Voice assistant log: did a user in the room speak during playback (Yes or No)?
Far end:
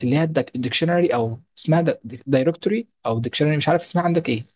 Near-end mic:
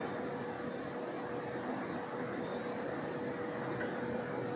No